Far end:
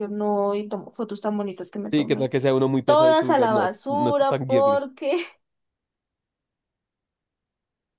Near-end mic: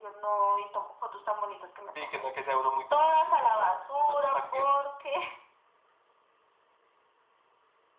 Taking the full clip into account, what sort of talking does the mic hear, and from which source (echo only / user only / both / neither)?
echo only